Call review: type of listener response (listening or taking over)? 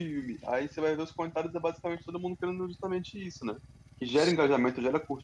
listening